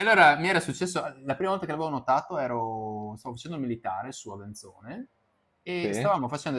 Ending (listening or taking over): listening